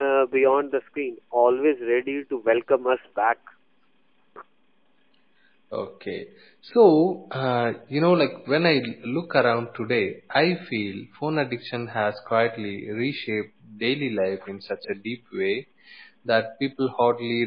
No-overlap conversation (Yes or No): Yes